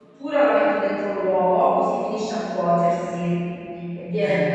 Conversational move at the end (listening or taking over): listening